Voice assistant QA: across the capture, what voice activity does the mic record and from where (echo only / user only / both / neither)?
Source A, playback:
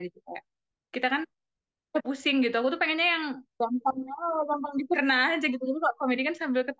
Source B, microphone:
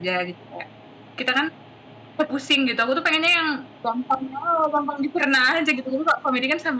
echo only